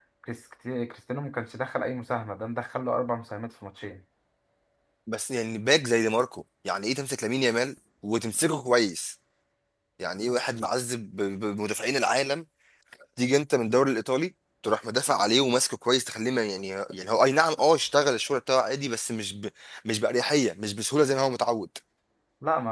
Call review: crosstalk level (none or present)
none